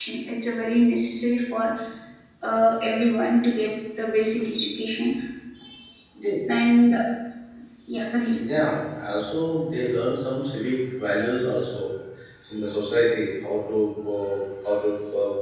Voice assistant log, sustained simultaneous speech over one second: none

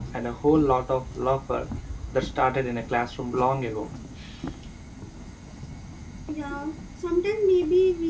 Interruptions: none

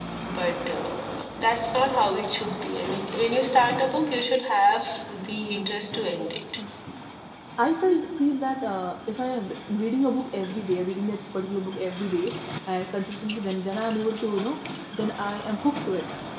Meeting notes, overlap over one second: none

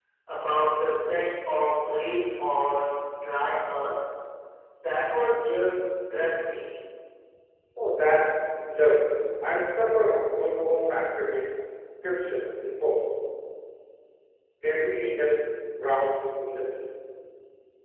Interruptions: none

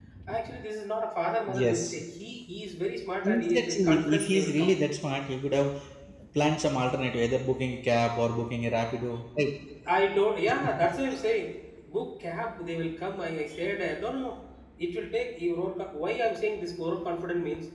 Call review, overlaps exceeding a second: present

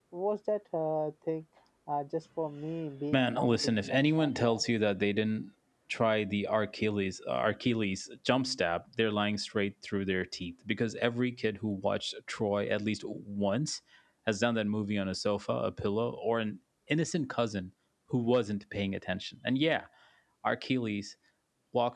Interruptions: present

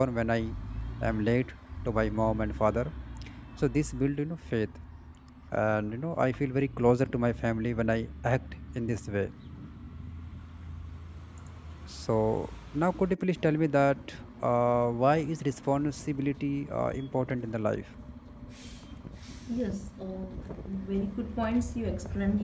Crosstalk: none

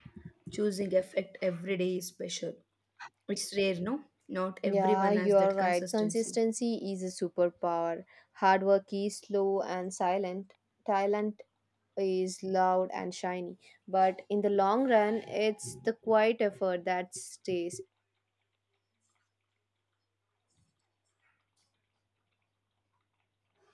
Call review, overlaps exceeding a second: present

